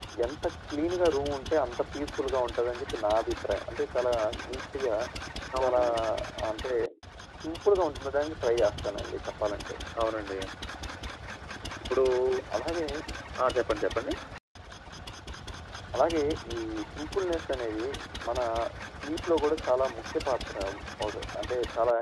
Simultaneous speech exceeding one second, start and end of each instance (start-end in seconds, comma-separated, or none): none